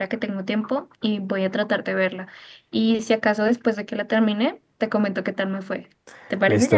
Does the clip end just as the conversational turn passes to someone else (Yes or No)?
Yes